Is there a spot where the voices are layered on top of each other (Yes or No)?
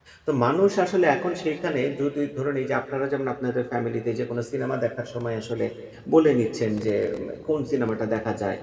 No